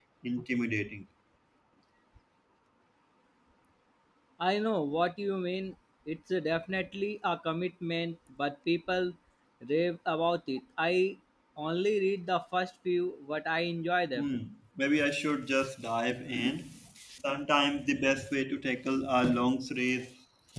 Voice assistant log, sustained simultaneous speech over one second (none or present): none